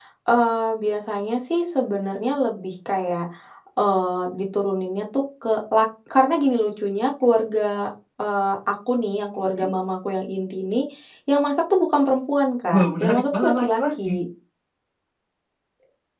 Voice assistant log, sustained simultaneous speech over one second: present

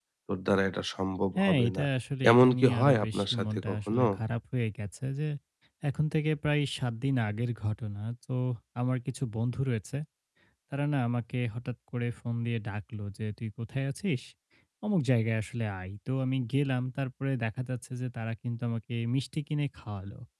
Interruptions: present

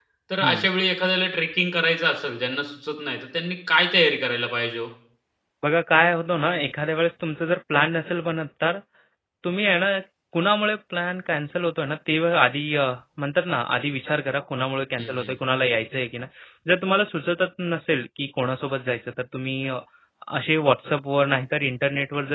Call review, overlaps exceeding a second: none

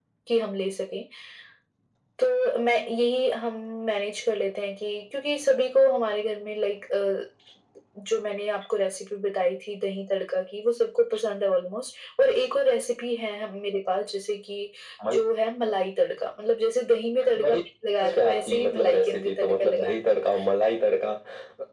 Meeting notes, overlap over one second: present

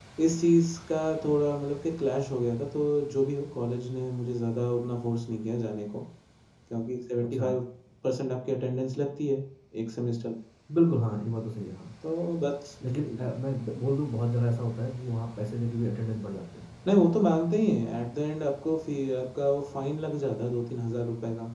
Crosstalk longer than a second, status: none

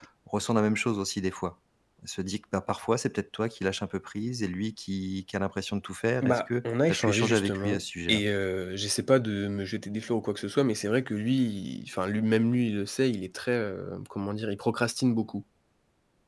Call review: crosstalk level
present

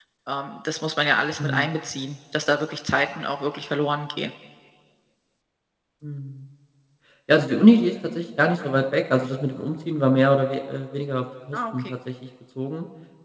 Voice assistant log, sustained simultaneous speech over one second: none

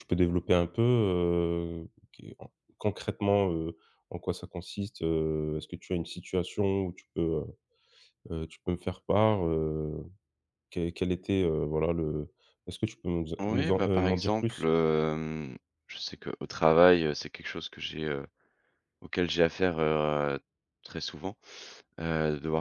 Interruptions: present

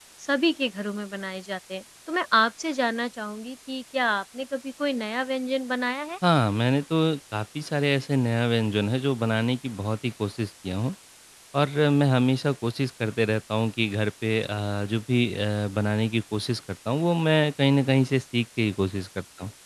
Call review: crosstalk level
none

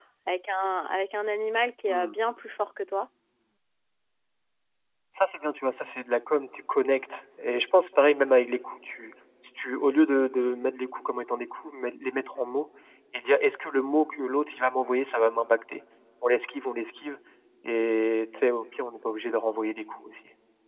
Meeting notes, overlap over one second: none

